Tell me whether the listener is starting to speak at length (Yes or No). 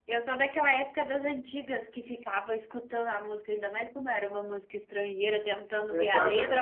No